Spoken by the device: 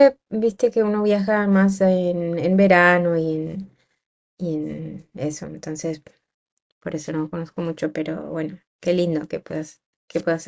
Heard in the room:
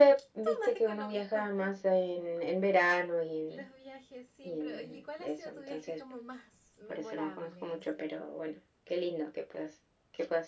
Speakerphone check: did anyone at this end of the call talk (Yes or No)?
Yes